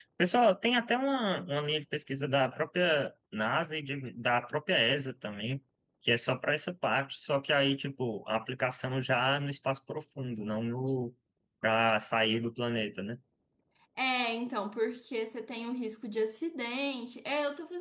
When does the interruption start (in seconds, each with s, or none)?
none